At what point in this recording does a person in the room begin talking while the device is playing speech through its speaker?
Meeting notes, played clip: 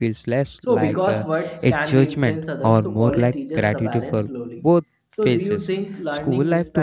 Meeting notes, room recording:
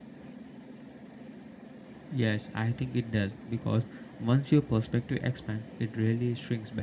2.1 s

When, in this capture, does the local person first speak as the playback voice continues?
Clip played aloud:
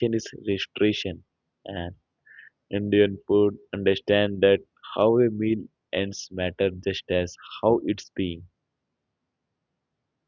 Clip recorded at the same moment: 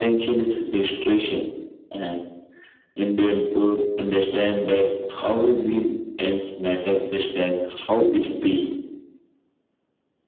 none

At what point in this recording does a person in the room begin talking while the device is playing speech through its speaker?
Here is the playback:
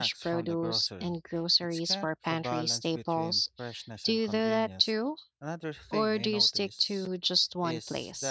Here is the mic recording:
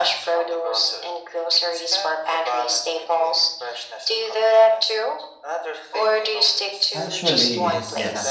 6.9 s

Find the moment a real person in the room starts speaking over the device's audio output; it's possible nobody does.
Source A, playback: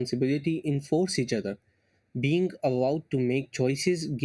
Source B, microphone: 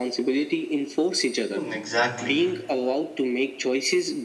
1.5 s

